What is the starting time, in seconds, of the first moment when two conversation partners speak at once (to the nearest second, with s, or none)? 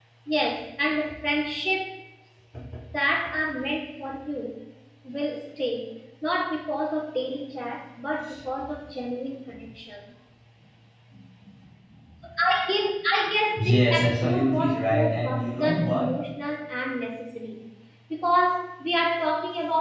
14 s